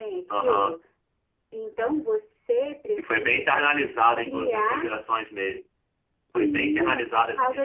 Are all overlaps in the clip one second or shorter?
No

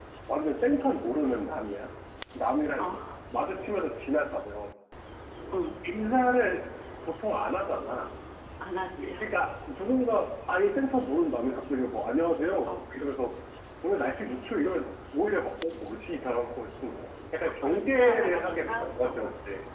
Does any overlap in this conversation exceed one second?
Yes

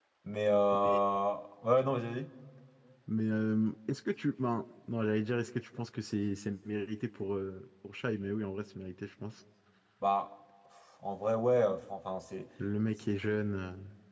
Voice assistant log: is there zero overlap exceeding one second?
Yes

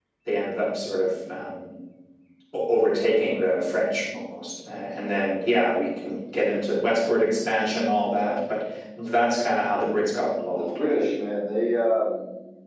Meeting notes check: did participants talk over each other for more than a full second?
No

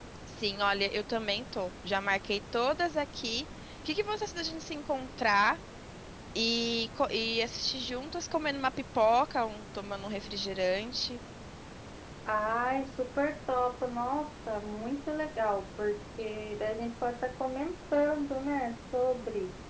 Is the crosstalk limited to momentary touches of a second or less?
Yes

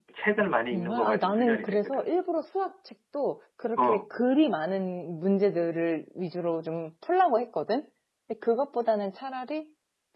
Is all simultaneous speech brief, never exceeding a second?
No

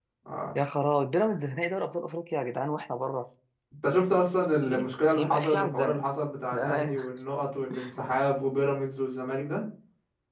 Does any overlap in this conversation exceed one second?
Yes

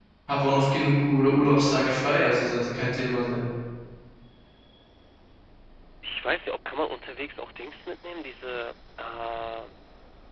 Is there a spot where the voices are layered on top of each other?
No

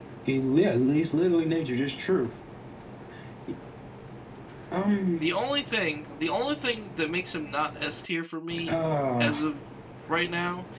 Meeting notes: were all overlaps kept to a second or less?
Yes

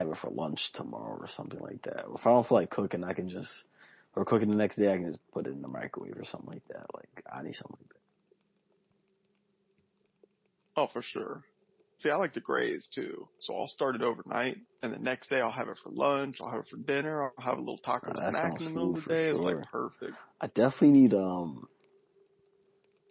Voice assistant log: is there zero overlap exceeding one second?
No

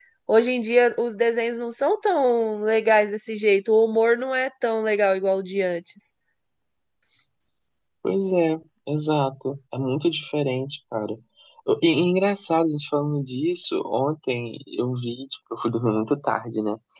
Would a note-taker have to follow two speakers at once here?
No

